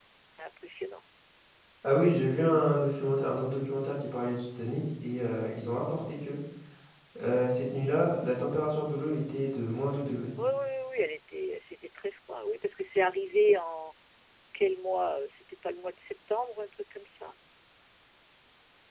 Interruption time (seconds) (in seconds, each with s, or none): none